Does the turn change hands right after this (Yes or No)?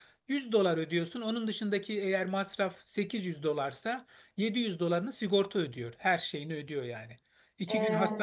No